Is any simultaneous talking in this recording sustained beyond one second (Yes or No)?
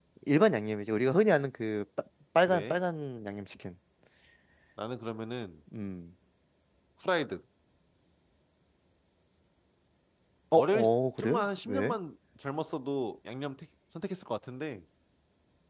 Yes